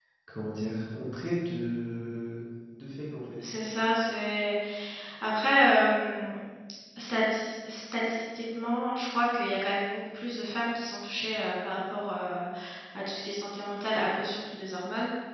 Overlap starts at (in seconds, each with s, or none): none